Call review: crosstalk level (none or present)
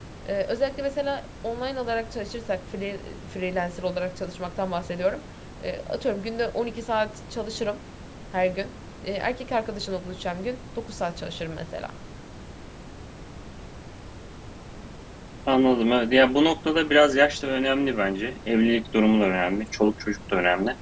none